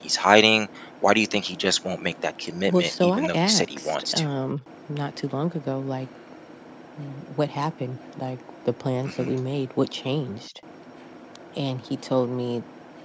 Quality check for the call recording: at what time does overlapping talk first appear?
2.7 s

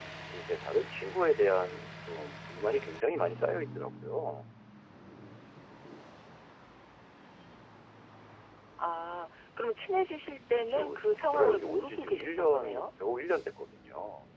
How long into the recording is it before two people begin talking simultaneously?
10.6 s

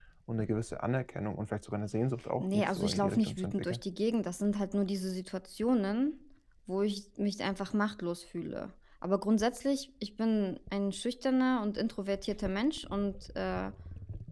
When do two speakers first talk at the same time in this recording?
2.4 s

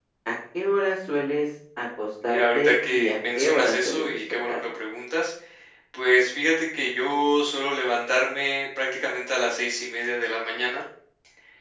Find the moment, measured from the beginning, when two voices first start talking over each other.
2.2 s

